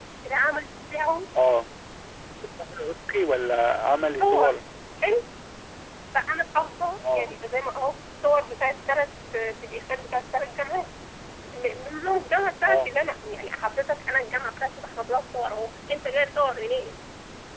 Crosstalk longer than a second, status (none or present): none